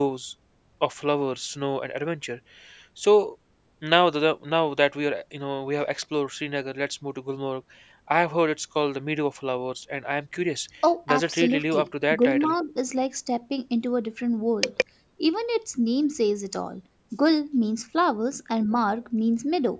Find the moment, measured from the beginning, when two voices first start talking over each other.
11 s

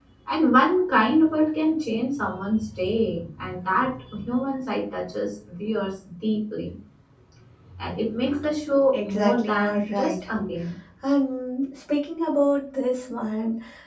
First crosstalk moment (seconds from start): 9 s

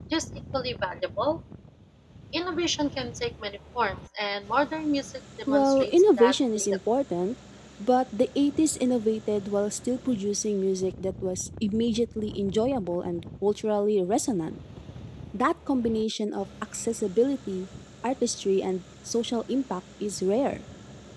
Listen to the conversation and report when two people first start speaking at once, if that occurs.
5 s

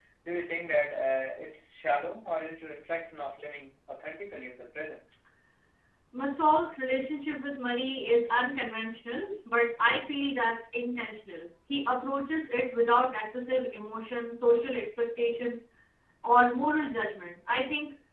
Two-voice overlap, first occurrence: none

